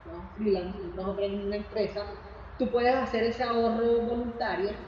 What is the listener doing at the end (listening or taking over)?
listening